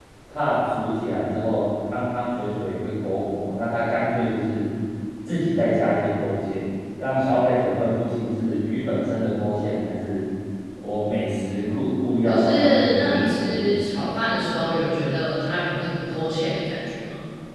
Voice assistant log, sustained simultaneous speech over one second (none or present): present